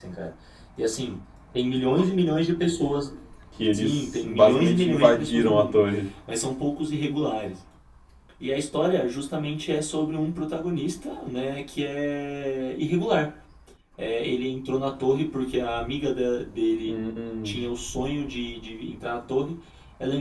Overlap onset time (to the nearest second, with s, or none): 4 s